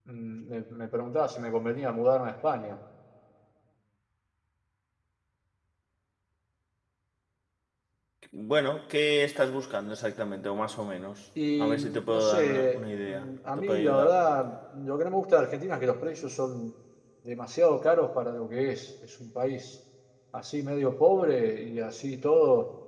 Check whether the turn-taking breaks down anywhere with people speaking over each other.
Yes, from 11.4 s

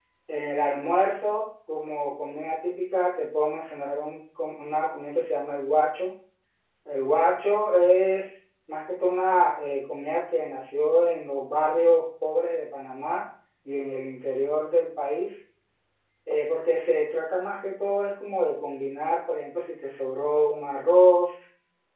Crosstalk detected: No

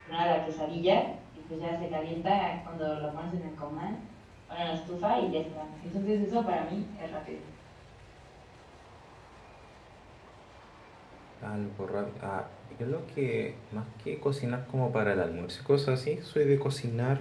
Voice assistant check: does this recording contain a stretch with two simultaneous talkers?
No

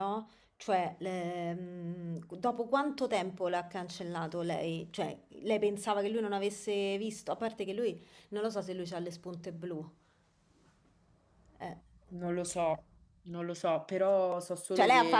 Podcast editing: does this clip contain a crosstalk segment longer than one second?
No

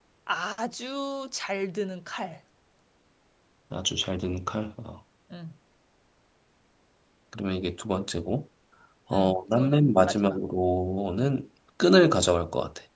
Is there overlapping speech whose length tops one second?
Yes, from 9.1 s

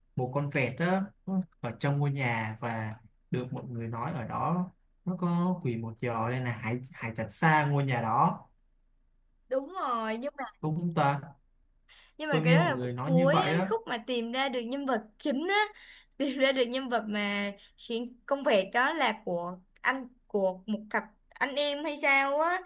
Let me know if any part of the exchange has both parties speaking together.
Yes, from 12.3 s

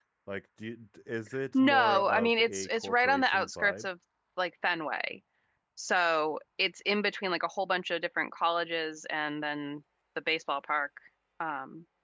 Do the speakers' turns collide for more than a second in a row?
Yes, from 1.5 s

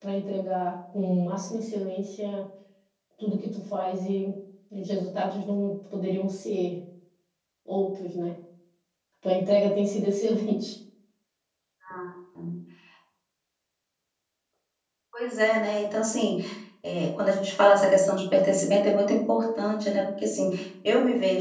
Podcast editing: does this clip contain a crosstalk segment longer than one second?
No

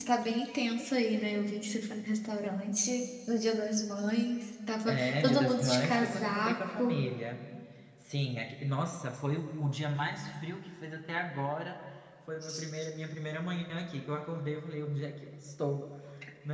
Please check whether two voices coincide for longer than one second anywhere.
Yes, from 4.8 s

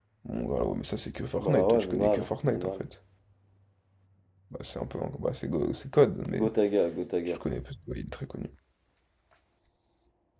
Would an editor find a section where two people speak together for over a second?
Yes, from 1.4 s

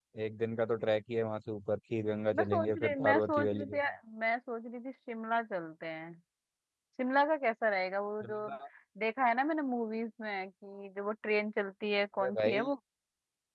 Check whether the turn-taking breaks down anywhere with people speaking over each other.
Yes, from 2.3 s

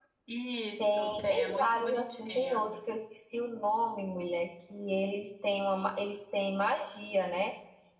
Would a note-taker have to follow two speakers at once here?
Yes, from 0.8 s

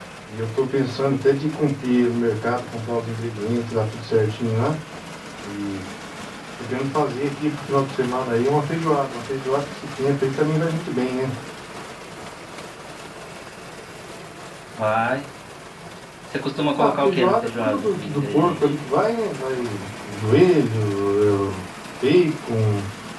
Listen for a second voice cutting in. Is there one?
Yes, from 16.8 s

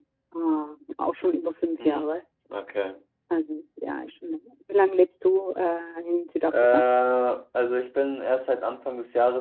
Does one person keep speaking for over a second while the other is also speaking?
No

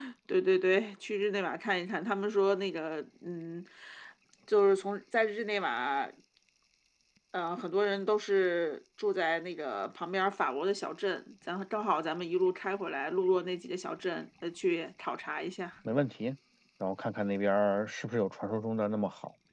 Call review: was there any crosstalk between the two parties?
No

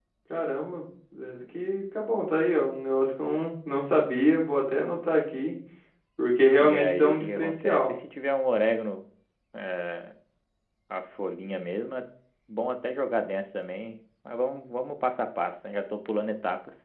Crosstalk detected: Yes, from 6.6 s

